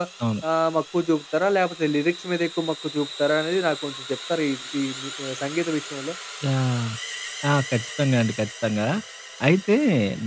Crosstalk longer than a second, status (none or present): none